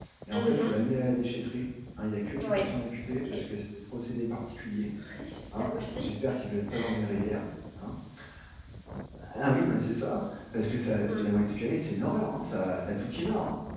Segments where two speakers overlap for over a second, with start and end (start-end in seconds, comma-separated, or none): none